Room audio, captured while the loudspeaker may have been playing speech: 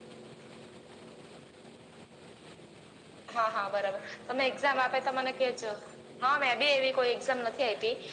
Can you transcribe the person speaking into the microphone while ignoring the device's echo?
none

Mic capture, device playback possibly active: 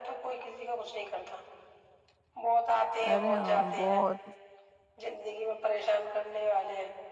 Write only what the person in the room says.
ارے ہاں بہت

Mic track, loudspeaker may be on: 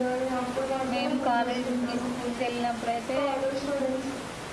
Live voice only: మేము కాలేజీ కి స్కూల్ కి వెళ్ళినప్పుడుయితే

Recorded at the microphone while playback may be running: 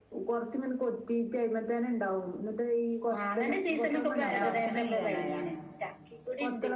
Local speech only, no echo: പിന്നെ ഭക്ഷണം കഴിക്കാനായാ

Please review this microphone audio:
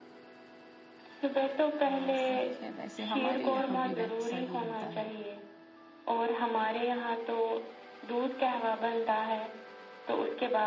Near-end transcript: ہاں صحیح ہے ویسے ہمارے یہاں بھی ویسا ہی ہوتا ہے

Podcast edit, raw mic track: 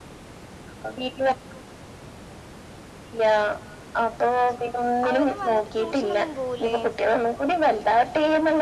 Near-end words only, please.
അവര് വന്നിട്ട് ട്യൂഷന് ഒന്നും പോവൂലേ?

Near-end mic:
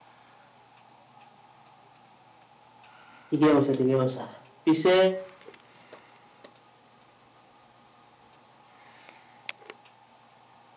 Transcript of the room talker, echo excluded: ঠিকে কৈছো, ঠিকে কৈছা। পিছে

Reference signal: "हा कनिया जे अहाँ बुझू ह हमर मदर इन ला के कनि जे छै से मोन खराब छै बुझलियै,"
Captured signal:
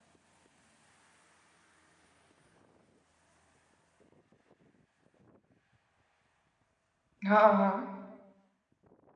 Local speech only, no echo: हँ हँ

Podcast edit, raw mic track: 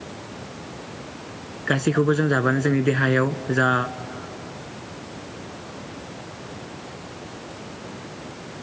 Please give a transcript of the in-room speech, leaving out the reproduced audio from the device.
गासैखौबो जों जाबानो जोंनि देहायाव जा

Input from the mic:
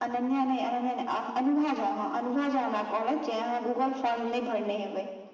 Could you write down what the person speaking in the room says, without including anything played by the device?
none

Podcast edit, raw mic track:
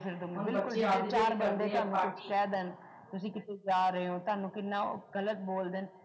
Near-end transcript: ਹੁਣ ਬੱਚੇ ਆਪਦਿ ਜਿਦ ਵੀ ਕਰਦੇ ਹੈ। ਪਾਰਟੀ,

